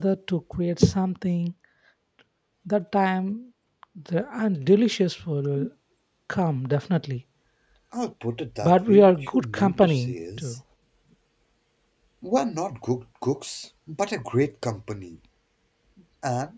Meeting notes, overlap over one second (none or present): present